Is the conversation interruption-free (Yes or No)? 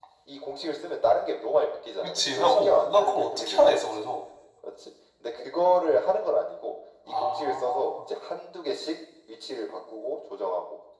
No